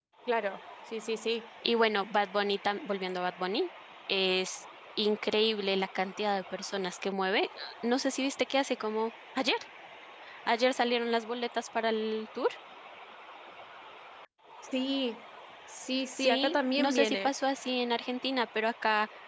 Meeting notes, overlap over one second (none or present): present